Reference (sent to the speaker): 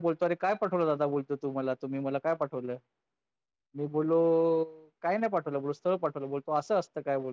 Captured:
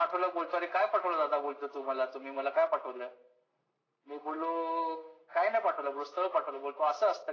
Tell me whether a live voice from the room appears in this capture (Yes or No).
No